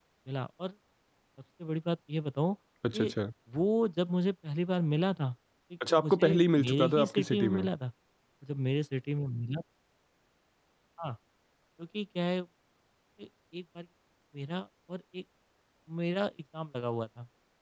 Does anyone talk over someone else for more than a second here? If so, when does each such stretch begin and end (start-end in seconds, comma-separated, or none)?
5.9-7.6